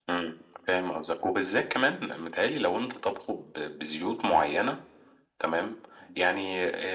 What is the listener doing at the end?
listening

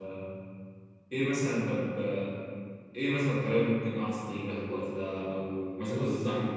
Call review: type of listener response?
listening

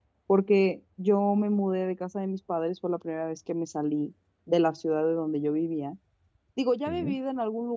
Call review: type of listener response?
listening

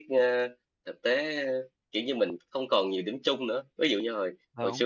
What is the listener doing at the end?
listening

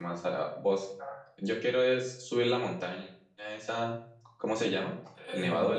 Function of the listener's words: taking over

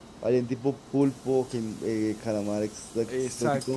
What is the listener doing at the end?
taking over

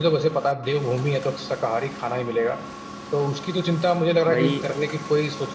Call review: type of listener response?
listening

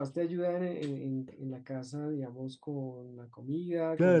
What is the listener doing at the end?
taking over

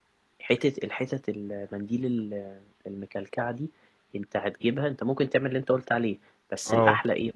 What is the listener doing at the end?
listening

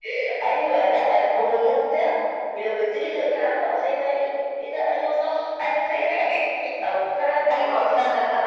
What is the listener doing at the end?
taking over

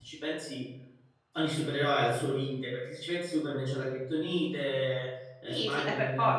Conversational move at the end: taking over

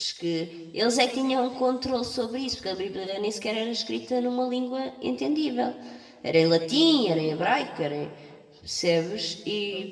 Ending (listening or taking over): listening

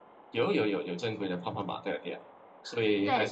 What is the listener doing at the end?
taking over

